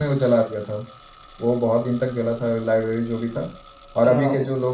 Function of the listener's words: listening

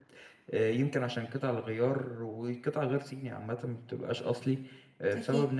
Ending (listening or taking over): listening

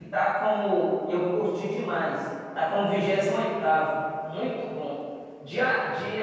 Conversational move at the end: listening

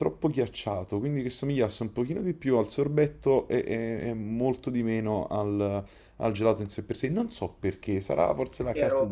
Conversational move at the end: taking over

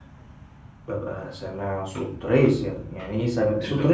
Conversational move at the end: taking over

